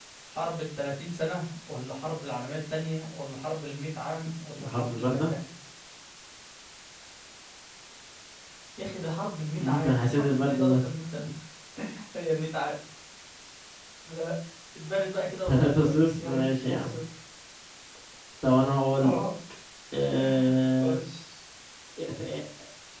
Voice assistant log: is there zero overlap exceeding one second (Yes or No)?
No